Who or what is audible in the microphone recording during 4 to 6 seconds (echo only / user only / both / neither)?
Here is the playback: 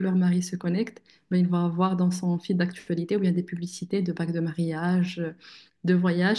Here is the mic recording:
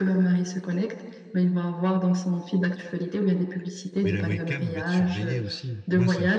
both